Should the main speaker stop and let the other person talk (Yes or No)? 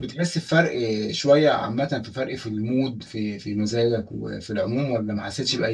Yes